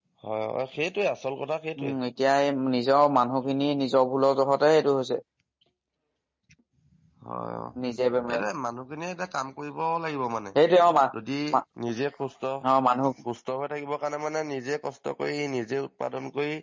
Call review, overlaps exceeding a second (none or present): none